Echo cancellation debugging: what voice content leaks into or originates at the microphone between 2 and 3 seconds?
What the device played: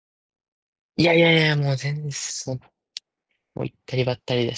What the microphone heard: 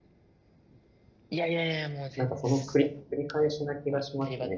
both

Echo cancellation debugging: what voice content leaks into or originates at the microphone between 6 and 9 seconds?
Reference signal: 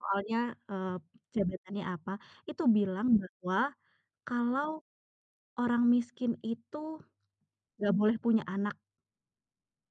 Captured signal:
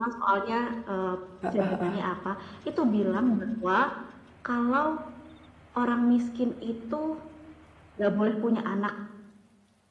echo only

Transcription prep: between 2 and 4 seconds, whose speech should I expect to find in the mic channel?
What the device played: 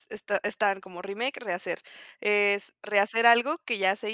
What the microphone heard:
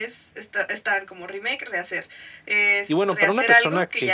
both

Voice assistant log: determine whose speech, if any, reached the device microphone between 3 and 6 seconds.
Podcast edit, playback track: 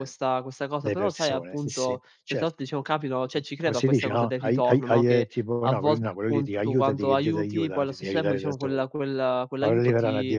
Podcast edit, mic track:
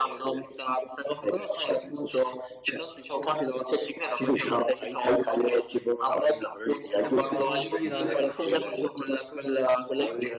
echo only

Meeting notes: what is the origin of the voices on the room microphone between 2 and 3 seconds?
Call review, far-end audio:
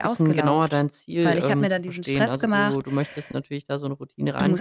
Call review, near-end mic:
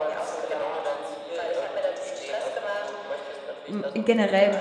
echo only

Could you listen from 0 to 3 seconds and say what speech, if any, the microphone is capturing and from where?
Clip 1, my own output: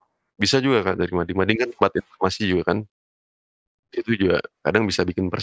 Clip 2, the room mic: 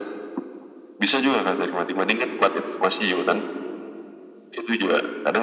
echo only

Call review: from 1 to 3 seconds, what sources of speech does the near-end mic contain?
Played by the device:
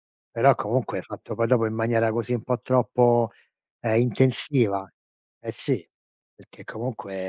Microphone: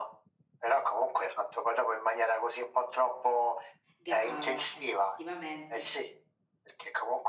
echo only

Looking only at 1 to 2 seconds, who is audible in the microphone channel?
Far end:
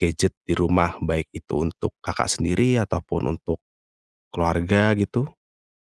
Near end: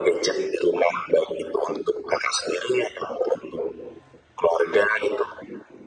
echo only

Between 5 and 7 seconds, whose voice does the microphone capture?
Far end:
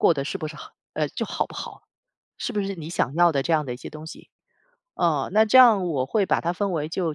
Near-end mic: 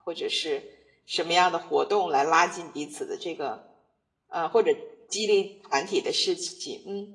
user only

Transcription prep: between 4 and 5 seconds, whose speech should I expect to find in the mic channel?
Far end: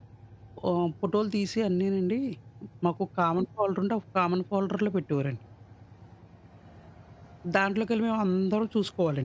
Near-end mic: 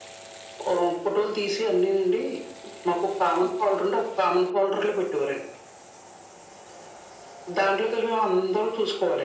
echo only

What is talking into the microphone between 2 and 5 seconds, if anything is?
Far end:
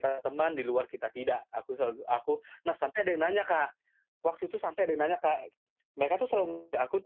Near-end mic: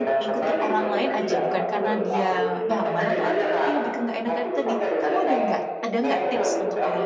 both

